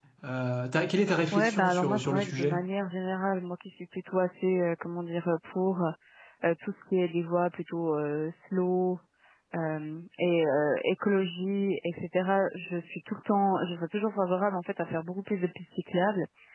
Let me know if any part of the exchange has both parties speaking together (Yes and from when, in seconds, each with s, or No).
Yes, from 1.3 s